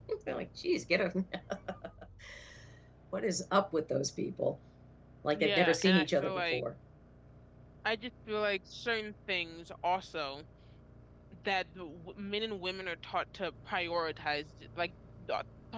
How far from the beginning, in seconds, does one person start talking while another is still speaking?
5.3 s

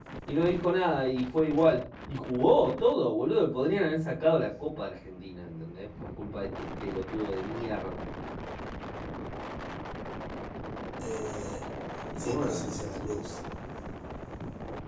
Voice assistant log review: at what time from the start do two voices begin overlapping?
12.2 s

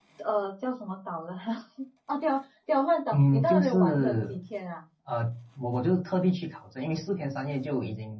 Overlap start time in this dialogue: 3.1 s

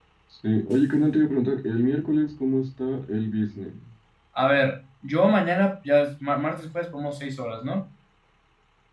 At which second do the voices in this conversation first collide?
none

